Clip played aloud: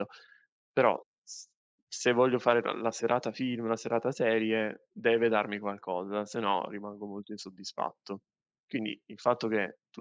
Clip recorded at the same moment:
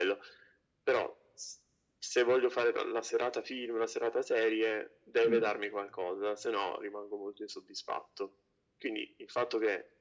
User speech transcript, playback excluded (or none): sì,